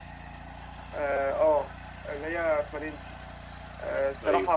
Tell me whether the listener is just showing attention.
Yes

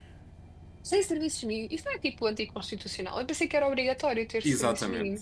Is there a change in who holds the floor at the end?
Yes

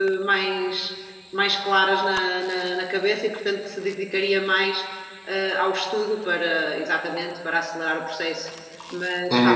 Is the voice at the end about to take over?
Yes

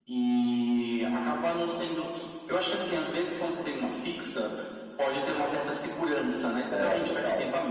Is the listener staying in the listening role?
Yes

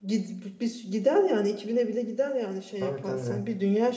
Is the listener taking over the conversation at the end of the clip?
No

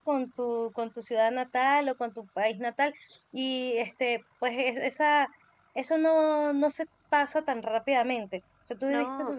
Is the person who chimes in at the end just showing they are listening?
Yes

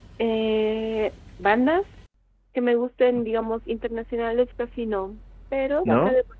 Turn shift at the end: No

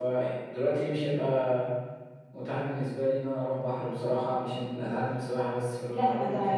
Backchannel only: No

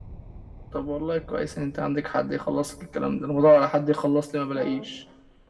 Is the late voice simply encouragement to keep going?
Yes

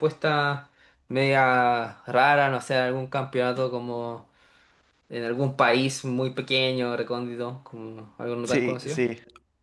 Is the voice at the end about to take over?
Yes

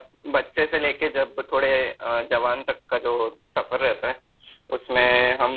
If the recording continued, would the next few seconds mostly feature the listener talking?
No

